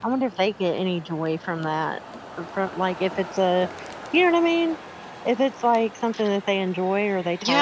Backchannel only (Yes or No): No